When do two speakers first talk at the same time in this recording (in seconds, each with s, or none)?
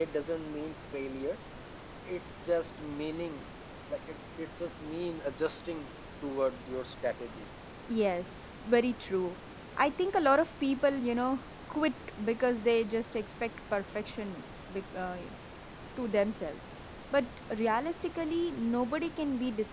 none